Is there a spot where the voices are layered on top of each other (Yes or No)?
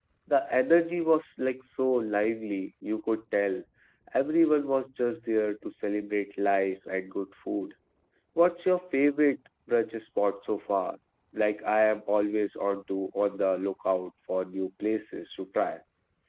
No